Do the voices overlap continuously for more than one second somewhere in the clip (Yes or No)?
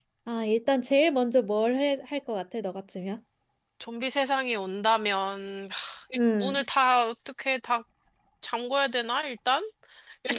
No